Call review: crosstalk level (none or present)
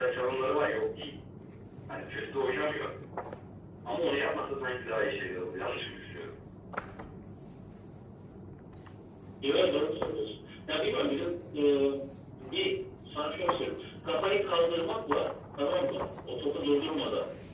none